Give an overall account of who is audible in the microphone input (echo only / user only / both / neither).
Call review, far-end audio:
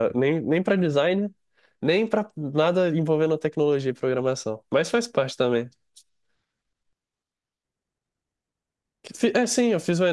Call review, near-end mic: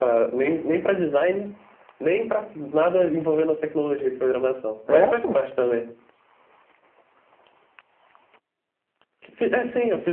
both